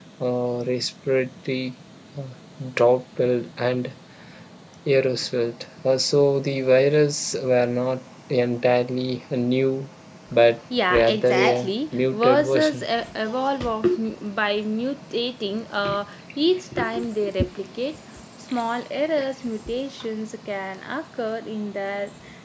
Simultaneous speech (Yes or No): Yes